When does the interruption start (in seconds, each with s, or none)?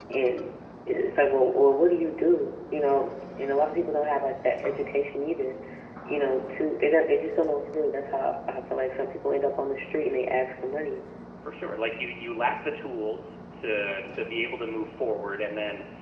none